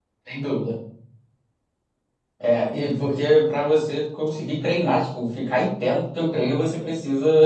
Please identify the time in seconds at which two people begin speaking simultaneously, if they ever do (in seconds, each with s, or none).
none